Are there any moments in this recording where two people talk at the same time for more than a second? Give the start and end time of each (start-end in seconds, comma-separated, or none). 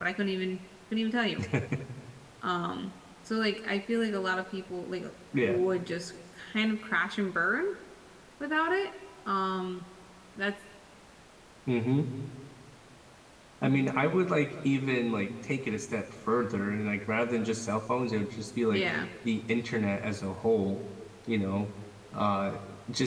none